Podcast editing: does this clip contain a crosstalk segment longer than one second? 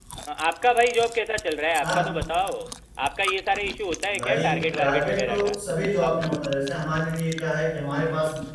Yes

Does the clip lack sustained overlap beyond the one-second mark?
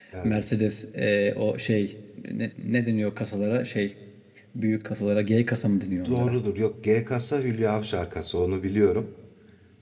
Yes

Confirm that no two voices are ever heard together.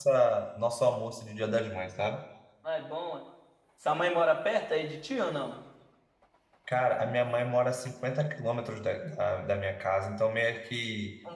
Yes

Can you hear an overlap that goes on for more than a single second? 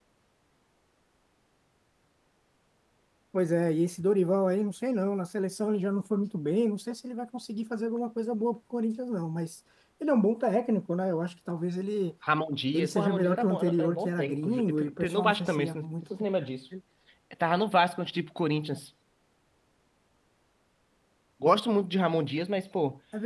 Yes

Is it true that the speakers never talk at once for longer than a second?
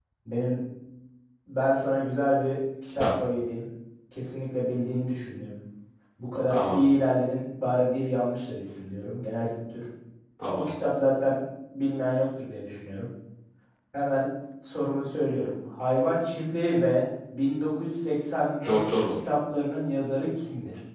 Yes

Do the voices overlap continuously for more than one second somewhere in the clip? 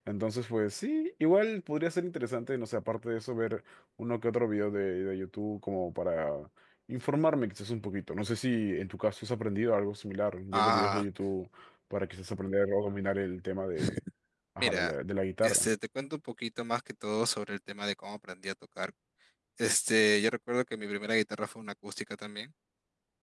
No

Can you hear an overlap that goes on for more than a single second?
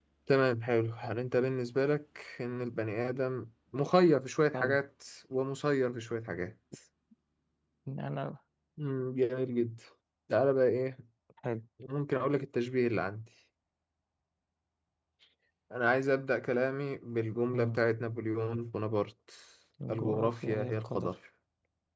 Yes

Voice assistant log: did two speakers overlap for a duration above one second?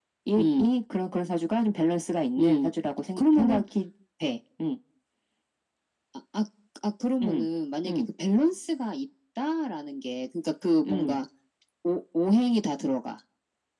No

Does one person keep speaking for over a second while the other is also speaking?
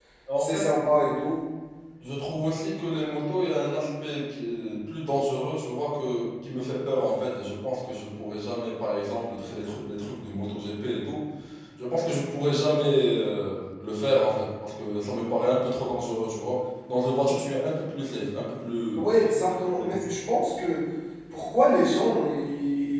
No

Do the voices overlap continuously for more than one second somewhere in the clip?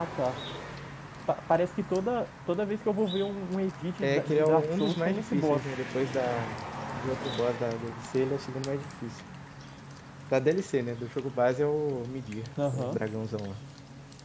Yes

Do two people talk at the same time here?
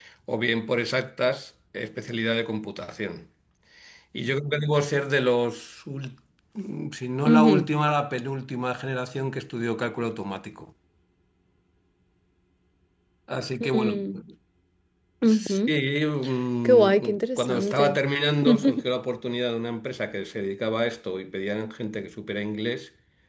Yes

